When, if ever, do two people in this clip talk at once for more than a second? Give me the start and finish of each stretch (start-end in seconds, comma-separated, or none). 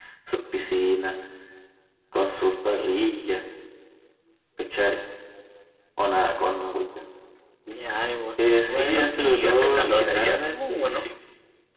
8.4-11.1